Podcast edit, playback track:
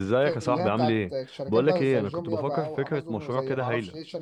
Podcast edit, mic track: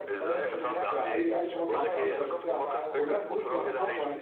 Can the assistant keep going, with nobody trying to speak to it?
No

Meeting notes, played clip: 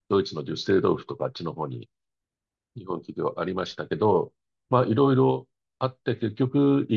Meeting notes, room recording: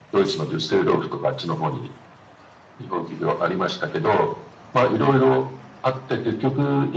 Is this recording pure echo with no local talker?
Yes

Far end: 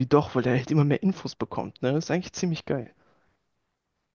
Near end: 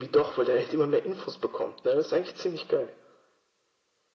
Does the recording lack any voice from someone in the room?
Yes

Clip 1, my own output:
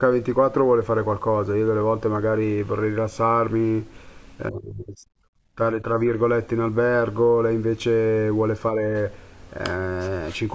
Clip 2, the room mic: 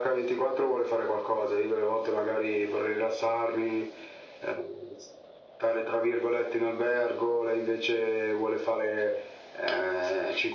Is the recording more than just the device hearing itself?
No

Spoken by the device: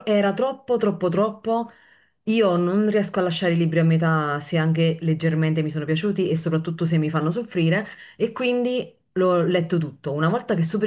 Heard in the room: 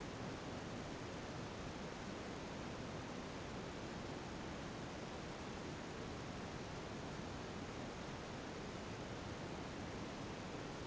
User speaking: No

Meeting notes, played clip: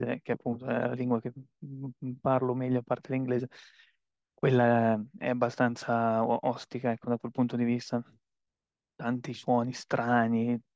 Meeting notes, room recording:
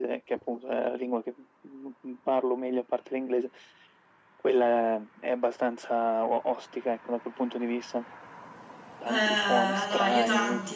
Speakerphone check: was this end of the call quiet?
No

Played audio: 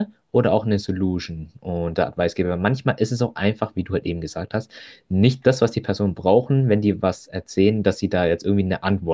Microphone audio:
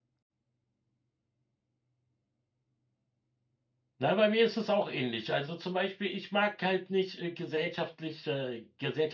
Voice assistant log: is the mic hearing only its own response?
No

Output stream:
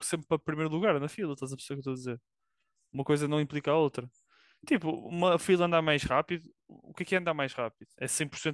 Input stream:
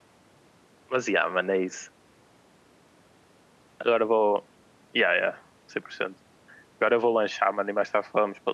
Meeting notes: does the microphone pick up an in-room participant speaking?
Yes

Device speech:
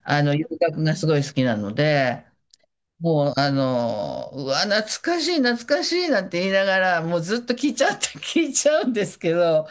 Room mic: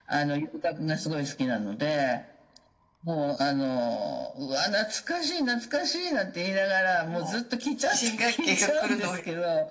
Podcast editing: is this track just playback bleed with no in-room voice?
No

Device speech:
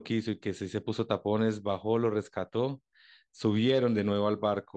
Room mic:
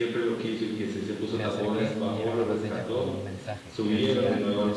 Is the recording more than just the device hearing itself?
Yes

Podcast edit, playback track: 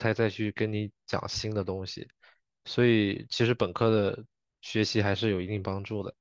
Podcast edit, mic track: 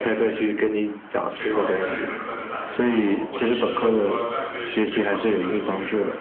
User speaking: Yes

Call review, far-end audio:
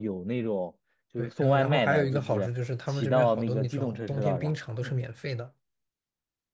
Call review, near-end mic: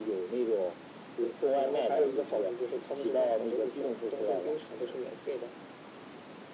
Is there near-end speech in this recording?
No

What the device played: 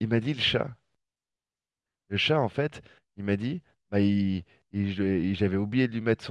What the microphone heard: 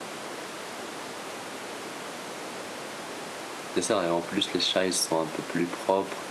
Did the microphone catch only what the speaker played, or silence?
No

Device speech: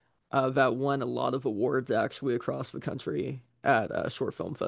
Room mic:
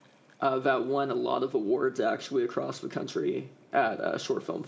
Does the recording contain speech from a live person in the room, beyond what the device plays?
No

